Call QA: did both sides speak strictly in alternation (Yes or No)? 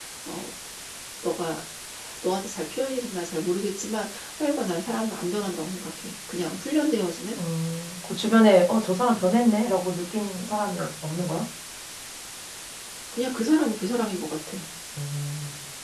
Yes